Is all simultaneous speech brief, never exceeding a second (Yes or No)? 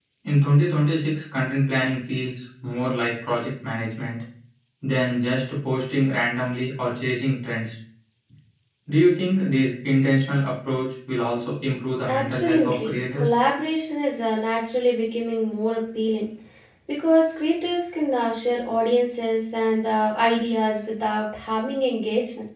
No